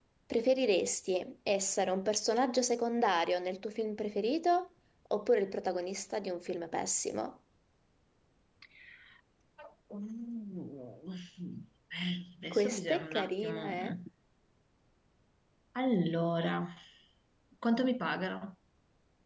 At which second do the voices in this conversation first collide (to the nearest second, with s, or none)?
13 s